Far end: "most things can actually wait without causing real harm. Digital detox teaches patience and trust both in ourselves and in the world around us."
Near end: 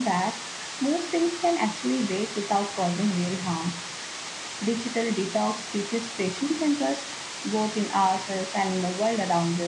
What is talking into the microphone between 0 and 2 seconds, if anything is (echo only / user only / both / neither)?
echo only